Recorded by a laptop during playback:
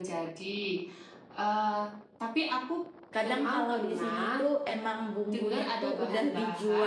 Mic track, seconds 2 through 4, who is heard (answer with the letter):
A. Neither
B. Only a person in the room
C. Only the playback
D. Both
D